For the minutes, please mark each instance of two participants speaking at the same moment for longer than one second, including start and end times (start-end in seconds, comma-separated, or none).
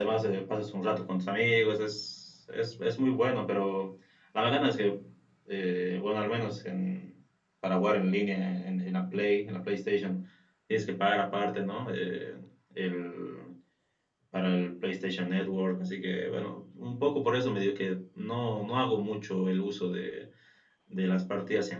none